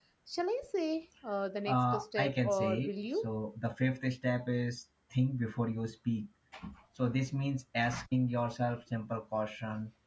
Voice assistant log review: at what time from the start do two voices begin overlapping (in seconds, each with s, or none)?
1.7 s